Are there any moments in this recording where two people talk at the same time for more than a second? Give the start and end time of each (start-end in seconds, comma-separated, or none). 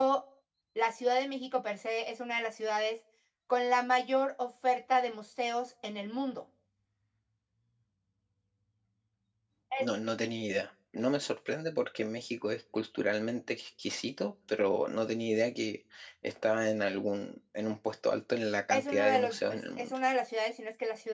18.7-19.9